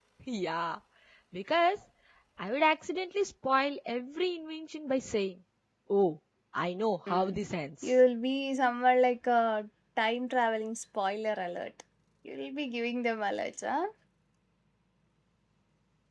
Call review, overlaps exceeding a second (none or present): none